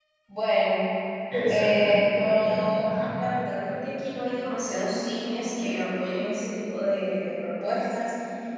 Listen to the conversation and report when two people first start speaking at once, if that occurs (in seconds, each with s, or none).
1.5 s